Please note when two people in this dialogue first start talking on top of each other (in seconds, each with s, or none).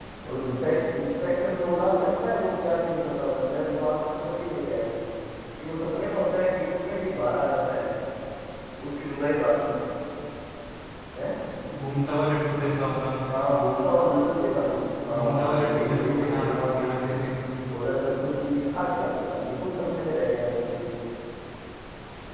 15.0 s